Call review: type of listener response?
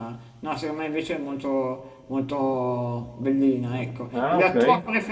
listening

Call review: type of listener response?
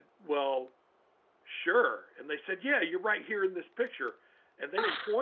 listening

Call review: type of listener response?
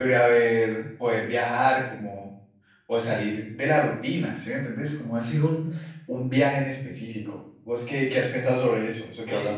taking over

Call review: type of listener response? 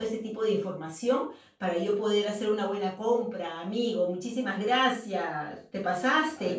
taking over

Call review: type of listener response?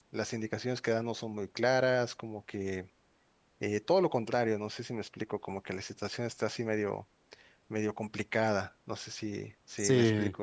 taking over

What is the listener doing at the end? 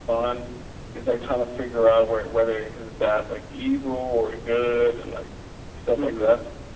taking over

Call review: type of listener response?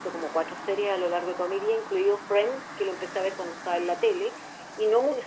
listening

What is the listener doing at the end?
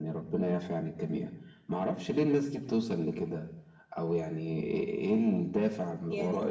listening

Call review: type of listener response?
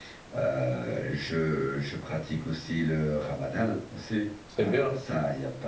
listening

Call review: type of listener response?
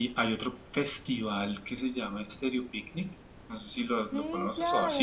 taking over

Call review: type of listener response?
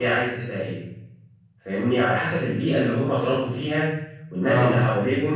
listening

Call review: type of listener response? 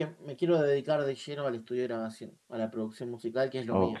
taking over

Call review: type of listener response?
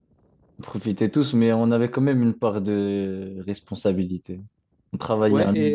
taking over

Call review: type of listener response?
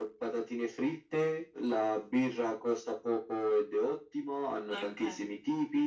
listening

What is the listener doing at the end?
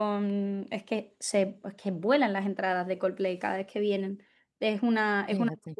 listening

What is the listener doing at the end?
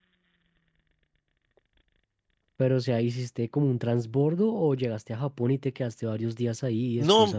taking over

